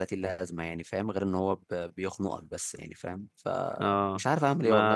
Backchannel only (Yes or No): No